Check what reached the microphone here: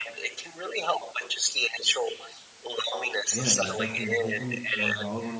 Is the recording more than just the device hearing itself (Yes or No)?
Yes